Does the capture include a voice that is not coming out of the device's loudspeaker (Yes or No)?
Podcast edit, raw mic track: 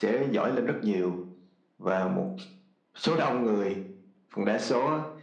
No